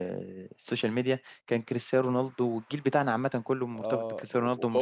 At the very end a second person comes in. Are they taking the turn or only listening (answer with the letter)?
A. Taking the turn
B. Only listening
A